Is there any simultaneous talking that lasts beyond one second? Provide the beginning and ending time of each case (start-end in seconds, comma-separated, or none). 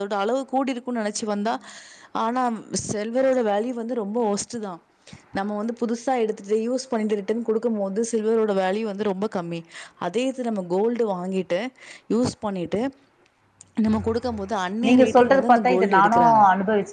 14.9-16.2